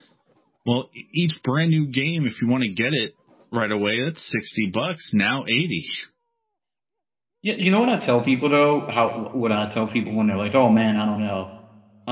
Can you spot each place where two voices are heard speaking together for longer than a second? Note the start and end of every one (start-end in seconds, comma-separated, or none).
none